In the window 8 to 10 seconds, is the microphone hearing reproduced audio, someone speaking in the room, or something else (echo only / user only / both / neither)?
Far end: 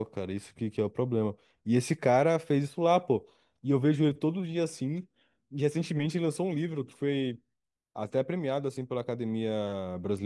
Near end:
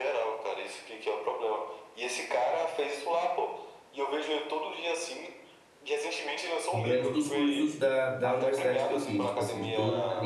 both